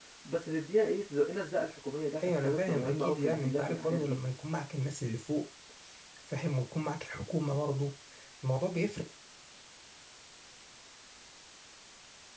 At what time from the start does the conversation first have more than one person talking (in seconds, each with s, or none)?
2.2 s